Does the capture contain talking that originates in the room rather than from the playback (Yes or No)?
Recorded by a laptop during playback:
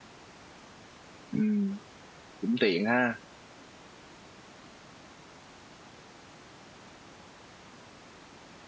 Yes